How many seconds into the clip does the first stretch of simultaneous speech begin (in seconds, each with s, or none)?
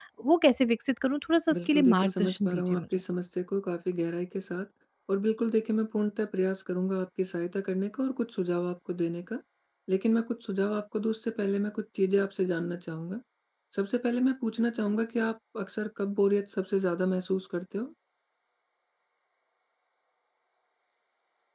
1.5 s